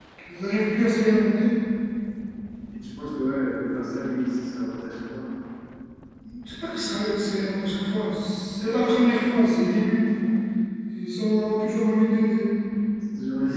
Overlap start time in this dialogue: none

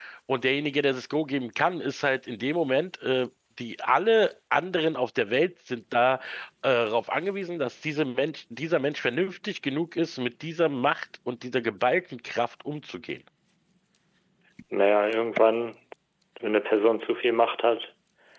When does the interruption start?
none

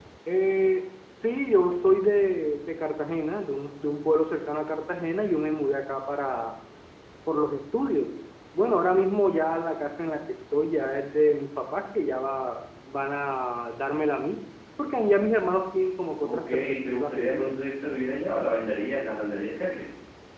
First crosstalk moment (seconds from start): 16 s

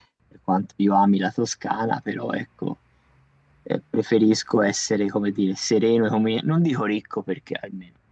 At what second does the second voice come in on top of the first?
none

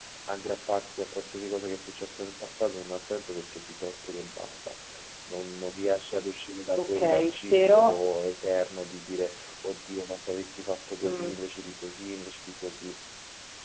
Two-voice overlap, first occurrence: 7 s

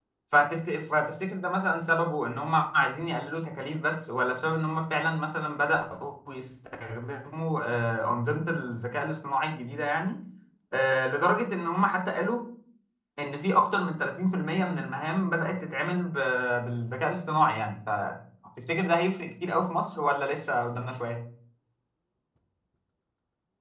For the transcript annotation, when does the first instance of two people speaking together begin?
none

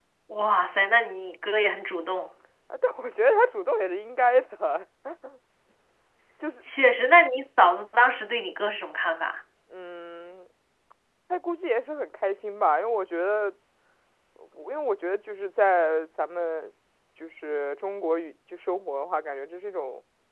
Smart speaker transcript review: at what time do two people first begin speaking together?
none

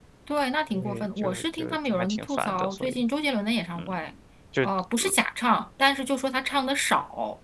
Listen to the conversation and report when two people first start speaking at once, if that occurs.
1 s

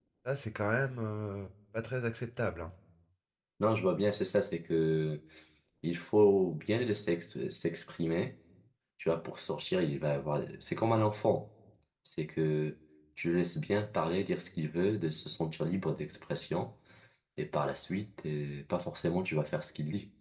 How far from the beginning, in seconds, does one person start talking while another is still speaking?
none

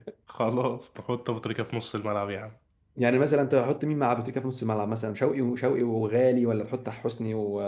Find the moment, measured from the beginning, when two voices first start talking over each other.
none

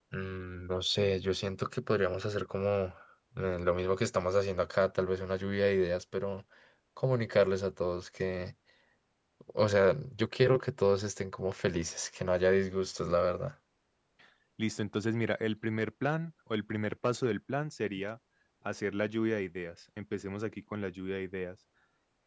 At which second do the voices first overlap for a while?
none

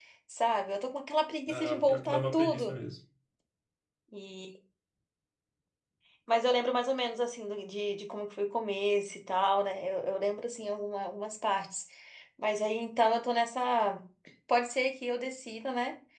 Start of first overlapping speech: 1 s

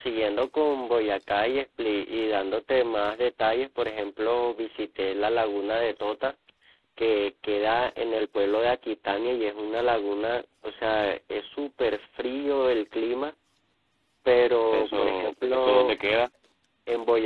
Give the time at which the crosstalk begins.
15 s

